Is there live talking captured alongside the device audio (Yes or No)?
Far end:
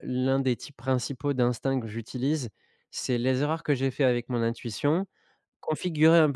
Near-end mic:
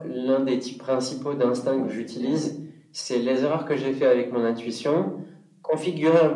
Yes